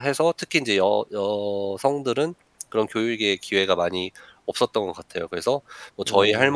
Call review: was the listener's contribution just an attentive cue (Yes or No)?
Yes